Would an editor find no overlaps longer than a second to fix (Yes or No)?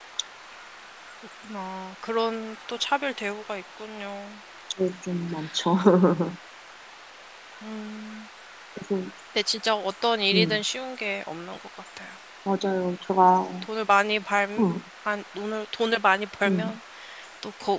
Yes